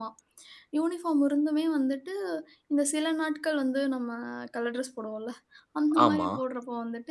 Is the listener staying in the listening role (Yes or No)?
Yes